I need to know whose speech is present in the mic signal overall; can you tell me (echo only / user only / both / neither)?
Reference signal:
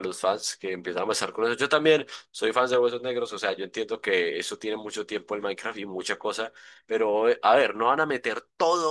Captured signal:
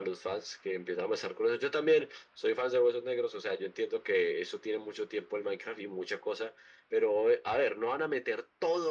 echo only